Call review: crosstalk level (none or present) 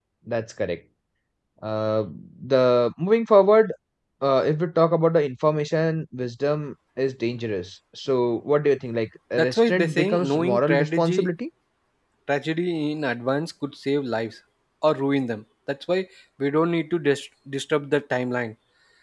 present